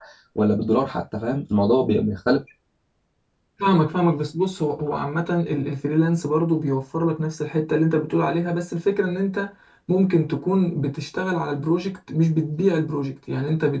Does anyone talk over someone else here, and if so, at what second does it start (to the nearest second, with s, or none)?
none